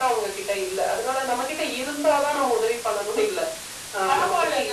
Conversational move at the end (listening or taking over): taking over